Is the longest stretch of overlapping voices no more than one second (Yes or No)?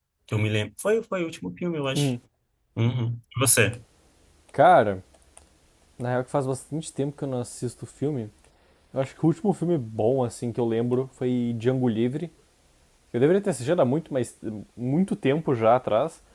Yes